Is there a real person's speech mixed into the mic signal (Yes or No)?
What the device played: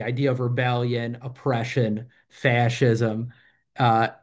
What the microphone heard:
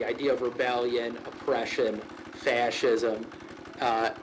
No